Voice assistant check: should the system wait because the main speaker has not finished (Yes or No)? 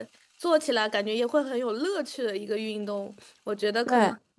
Yes